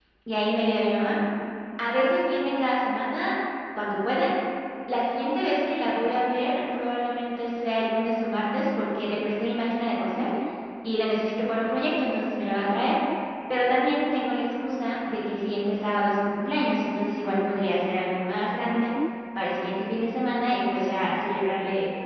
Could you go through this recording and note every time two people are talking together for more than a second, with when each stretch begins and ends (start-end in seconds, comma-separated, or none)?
none